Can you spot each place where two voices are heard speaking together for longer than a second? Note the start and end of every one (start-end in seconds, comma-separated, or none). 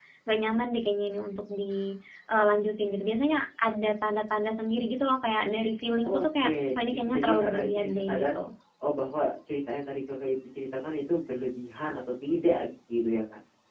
6.1-8.2